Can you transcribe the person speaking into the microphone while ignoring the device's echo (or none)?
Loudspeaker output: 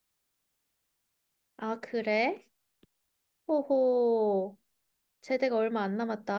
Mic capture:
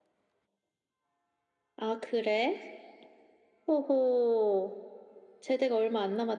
none